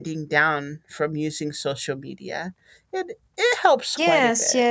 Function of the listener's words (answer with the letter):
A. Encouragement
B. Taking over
B